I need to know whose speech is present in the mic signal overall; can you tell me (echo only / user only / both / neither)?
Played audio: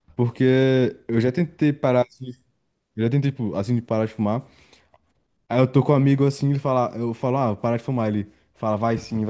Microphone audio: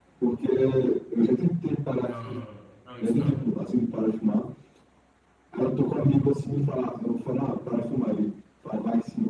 both